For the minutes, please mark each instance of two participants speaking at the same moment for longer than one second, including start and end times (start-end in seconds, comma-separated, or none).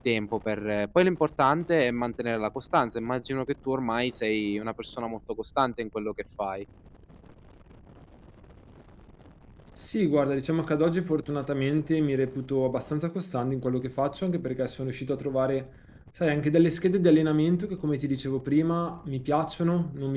none